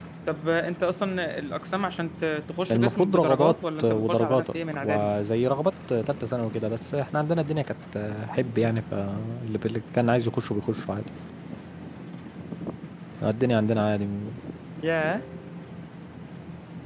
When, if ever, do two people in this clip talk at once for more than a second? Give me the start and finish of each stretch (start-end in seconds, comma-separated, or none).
2.7-5.1